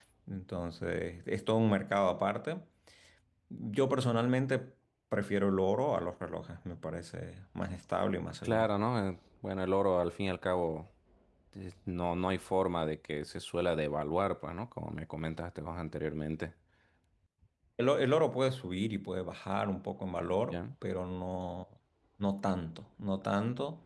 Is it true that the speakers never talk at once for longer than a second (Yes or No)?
Yes